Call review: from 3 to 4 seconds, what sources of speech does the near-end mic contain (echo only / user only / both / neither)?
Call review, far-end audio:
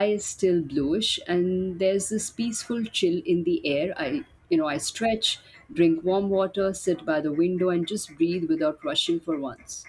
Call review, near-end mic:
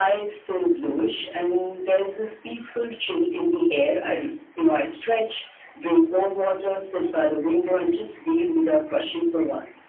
echo only